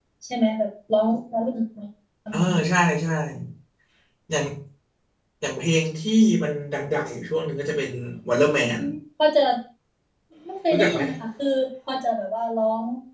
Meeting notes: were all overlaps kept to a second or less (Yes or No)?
Yes